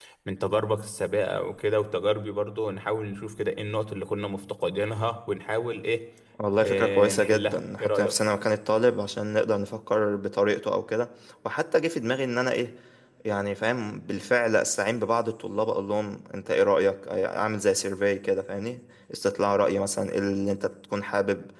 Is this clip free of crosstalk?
No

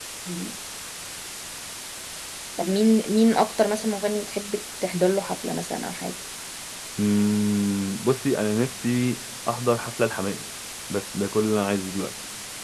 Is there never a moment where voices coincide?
Yes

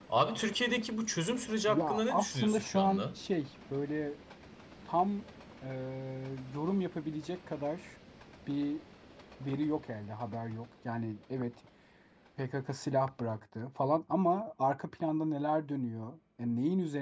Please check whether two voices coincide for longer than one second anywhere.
Yes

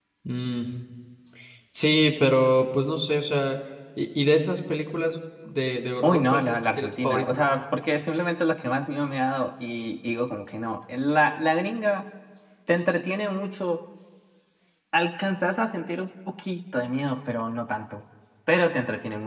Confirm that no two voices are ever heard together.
No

